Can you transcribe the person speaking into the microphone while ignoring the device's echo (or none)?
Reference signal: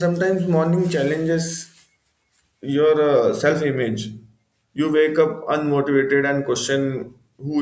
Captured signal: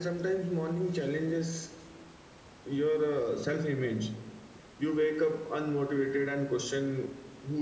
none